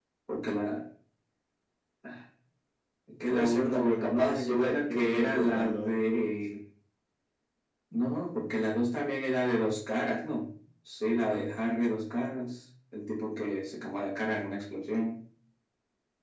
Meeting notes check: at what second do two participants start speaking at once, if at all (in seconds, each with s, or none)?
3.3 s